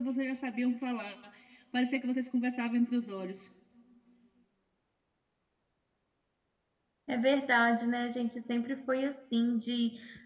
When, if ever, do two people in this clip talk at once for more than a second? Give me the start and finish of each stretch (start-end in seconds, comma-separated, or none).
none